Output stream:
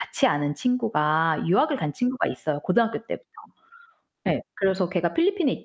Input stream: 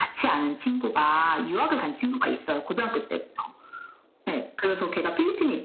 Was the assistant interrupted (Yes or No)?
No